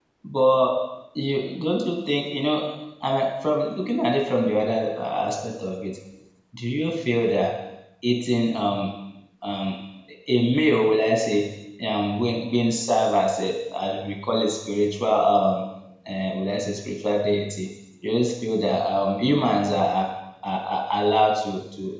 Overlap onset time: none

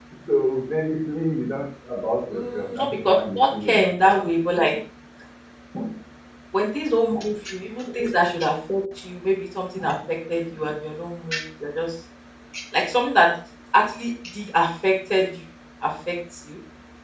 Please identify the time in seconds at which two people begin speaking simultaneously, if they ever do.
2.3 s

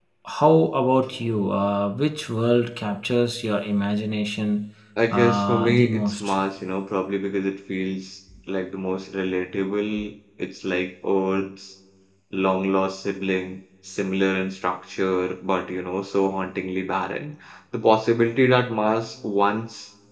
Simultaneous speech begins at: 5.1 s

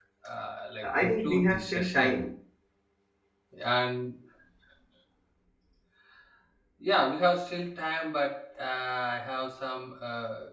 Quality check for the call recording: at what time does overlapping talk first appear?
0.8 s

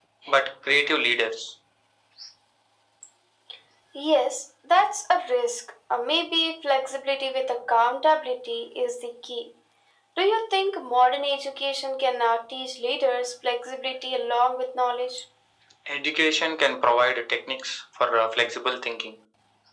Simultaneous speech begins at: none

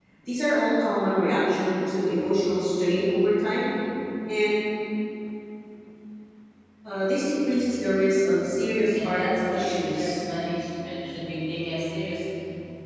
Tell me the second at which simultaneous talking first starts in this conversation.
8.9 s

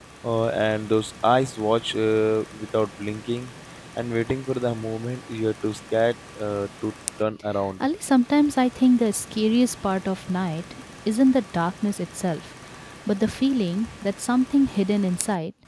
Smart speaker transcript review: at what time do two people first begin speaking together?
none

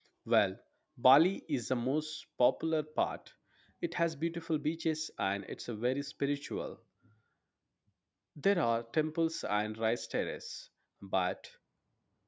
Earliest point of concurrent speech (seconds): none

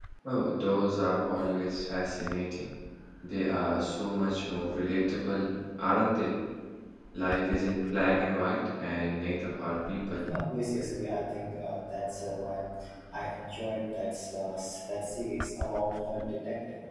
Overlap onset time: none

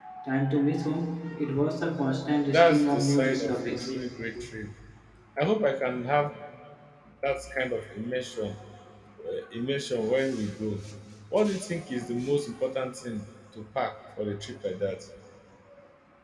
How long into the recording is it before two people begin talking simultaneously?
2.5 s

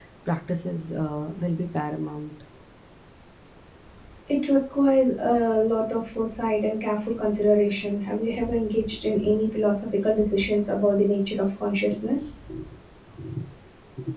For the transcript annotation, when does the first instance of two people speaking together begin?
none

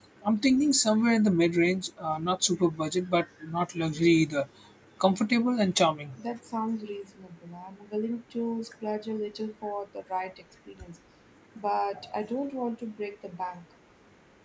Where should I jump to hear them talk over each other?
none

